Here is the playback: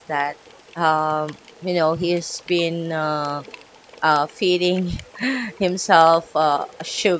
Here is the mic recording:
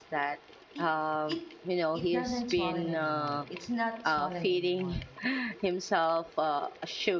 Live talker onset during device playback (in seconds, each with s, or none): 0.8 s